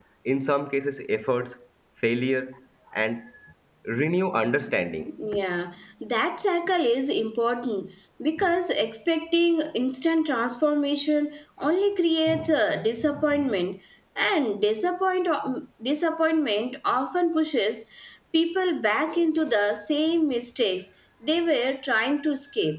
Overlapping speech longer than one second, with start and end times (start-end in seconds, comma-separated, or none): none